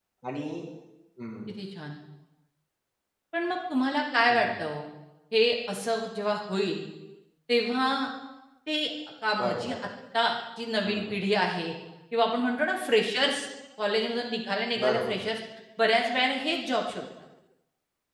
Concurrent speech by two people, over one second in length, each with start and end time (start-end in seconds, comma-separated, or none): none